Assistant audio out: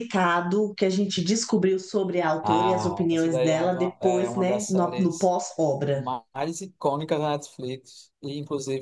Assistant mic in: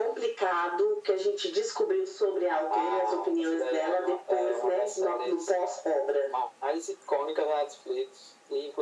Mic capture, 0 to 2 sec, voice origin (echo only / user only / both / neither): echo only